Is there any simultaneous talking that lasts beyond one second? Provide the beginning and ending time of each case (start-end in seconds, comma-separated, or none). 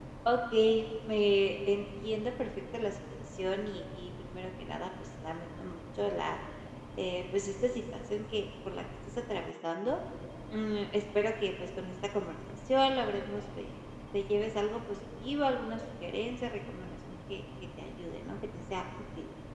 none